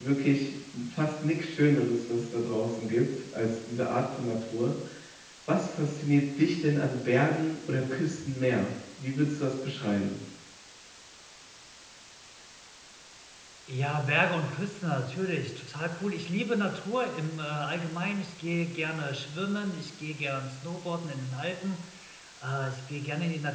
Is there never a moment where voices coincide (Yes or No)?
Yes